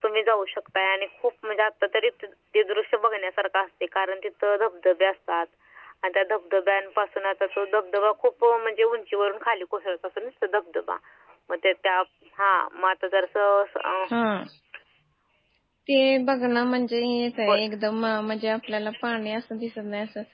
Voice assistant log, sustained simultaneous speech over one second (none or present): none